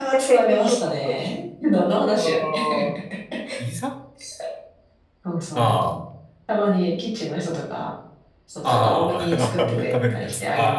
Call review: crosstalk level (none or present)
present